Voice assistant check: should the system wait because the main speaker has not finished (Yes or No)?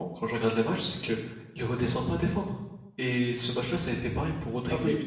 Yes